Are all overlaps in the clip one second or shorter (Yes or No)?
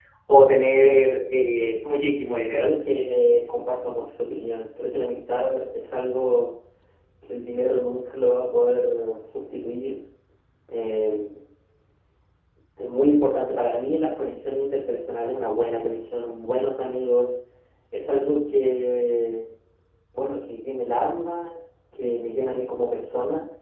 Yes